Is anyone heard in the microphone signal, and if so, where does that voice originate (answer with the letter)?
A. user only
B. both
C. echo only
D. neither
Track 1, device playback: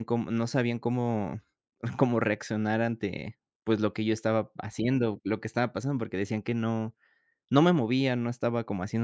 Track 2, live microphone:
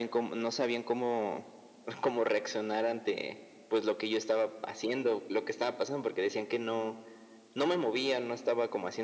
C